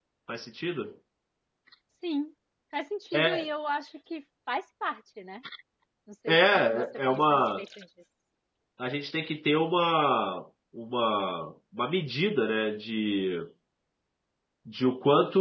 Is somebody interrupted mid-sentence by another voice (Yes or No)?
Yes